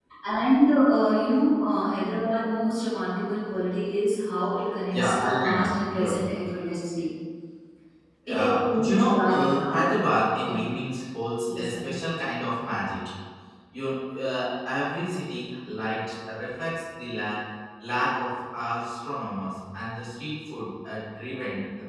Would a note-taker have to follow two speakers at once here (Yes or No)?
Yes